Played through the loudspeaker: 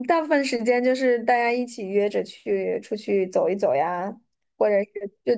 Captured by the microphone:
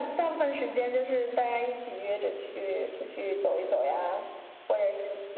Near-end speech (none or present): none